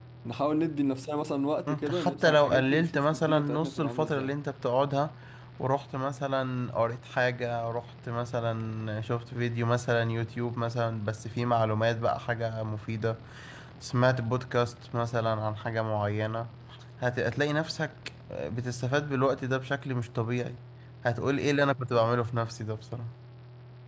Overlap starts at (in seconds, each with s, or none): 1.7 s